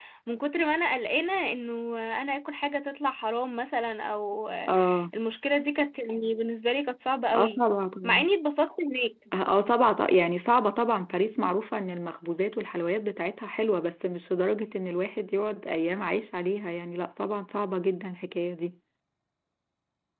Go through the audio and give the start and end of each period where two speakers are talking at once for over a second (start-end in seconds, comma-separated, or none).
none